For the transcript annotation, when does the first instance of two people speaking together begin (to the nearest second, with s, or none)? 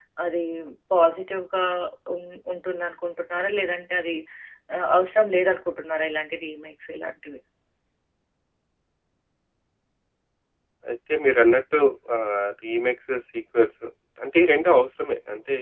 none